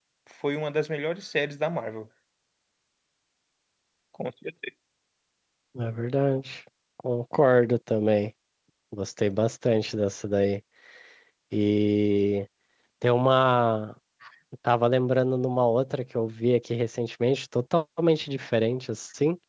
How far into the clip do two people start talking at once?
none

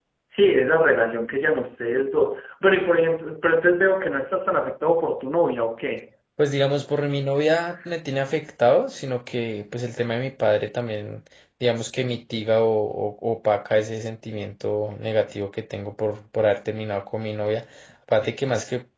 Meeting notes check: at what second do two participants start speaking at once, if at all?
none

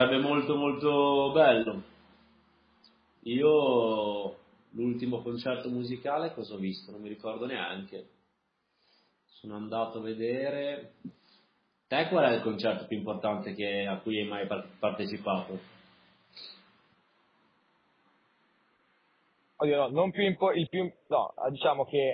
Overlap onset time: none

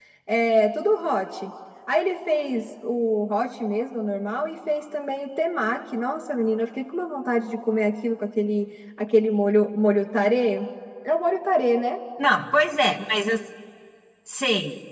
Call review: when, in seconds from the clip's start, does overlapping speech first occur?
none

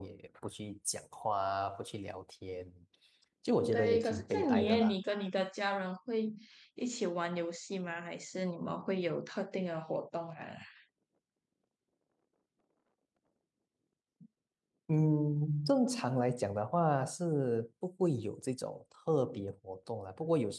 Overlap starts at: 3.7 s

